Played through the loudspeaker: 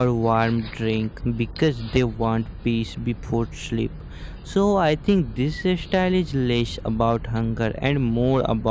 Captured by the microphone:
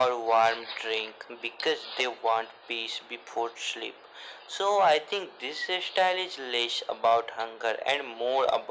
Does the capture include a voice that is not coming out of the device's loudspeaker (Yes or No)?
No